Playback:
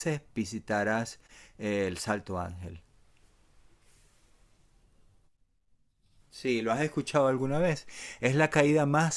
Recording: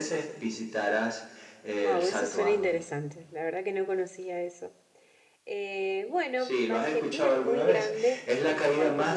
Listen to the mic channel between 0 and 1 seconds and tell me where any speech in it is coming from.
echo only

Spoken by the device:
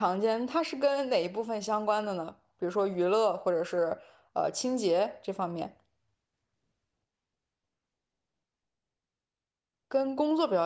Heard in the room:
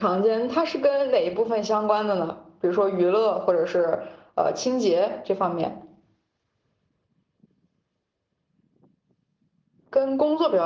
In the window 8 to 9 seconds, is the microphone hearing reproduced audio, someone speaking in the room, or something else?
neither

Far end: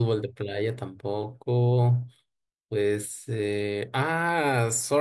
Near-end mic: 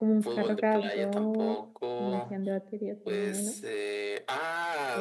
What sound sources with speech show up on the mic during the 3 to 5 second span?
both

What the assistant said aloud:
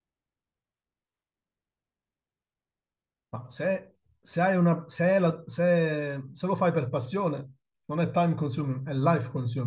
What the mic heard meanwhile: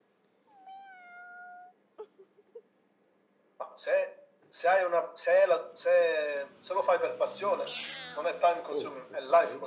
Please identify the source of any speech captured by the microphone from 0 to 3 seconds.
neither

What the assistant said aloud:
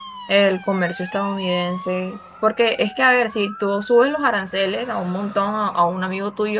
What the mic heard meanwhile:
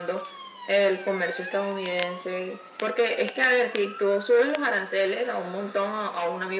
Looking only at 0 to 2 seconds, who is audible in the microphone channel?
echo only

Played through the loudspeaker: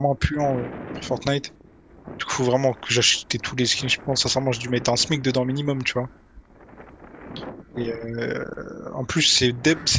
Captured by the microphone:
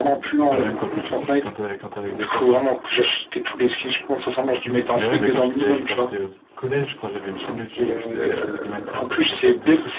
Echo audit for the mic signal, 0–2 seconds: both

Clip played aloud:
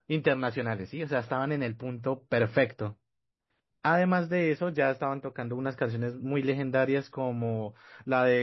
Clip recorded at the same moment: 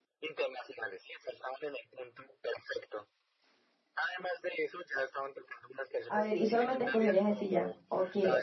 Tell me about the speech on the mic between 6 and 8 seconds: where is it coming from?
both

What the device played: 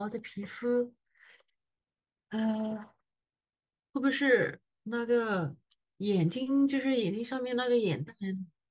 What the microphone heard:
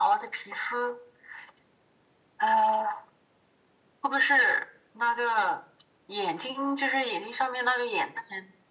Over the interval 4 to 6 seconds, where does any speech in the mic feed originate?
echo only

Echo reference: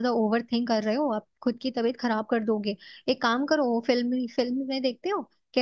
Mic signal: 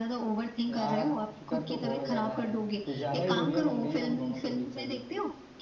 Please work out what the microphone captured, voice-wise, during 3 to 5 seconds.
both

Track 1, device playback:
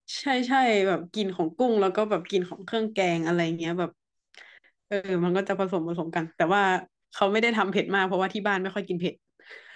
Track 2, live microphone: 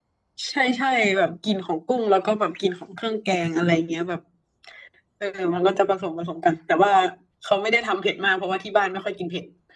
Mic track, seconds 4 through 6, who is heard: echo only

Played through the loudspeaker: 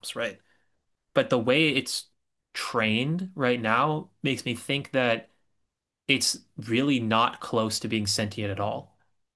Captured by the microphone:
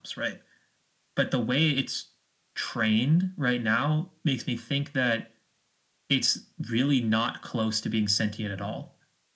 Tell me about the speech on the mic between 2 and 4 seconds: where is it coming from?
echo only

